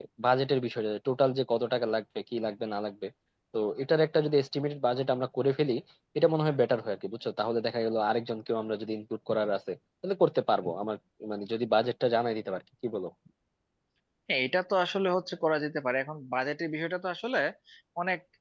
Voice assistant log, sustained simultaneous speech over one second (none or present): none